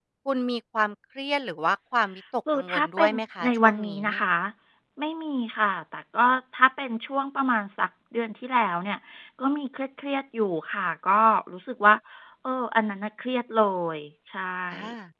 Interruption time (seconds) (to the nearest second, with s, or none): 2 s